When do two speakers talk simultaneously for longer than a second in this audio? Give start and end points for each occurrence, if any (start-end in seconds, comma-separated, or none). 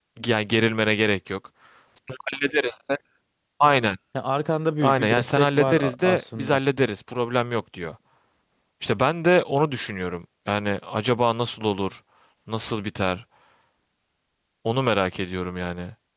4.8-6.6